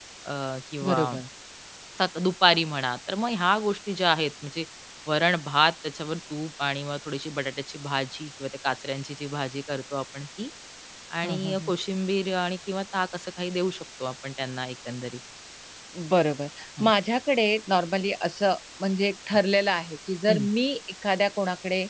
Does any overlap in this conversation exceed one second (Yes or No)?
No